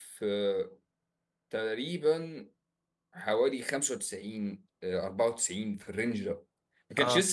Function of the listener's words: listening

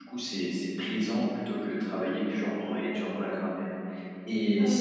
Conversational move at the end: listening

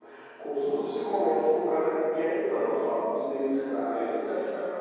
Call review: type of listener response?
taking over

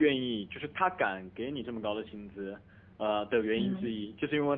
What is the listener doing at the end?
listening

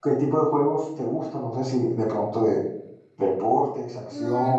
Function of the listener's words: taking over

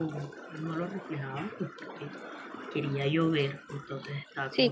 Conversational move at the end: taking over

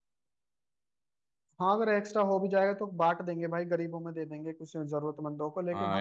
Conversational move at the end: taking over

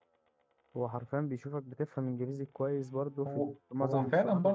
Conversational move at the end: taking over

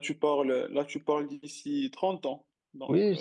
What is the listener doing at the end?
taking over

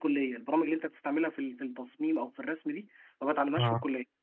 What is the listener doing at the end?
listening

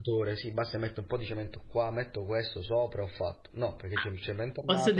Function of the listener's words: taking over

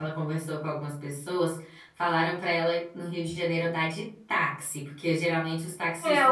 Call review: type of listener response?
taking over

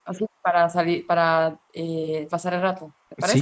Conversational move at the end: taking over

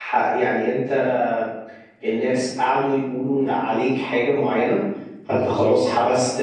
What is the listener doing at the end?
listening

